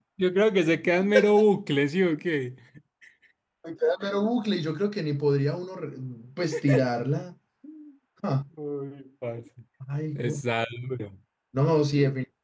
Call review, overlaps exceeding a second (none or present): none